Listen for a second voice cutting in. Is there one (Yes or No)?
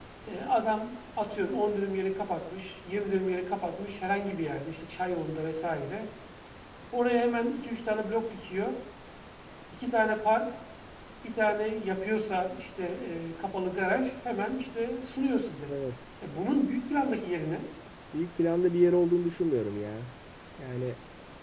No